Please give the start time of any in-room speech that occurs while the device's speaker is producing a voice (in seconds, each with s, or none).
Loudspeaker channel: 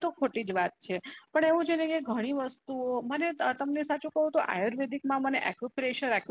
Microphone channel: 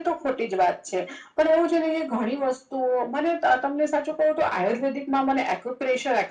none